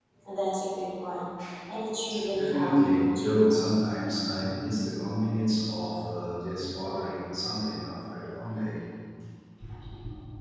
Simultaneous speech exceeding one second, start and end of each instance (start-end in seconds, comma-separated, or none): 2.3-3.7